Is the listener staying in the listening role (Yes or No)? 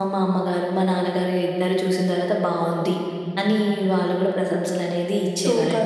No